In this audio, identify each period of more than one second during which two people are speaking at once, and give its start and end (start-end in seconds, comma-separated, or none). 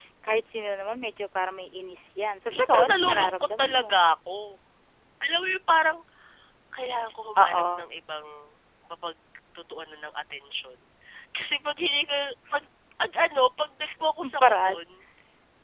2.5-3.9